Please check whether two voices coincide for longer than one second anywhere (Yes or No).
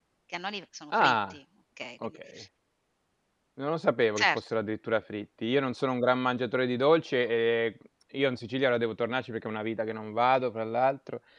No